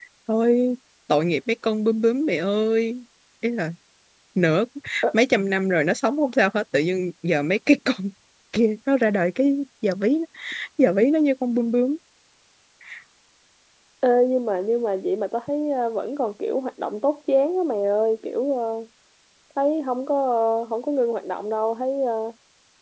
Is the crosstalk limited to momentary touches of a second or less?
Yes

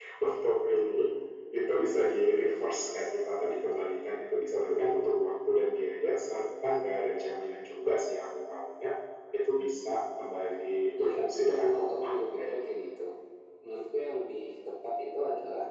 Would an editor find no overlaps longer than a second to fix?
No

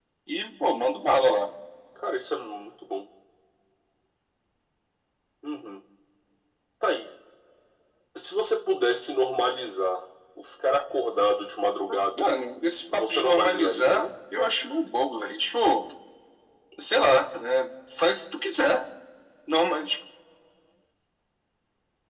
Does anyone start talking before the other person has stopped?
Yes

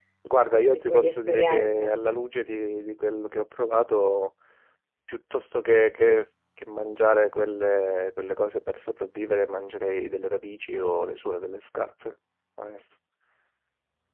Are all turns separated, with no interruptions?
No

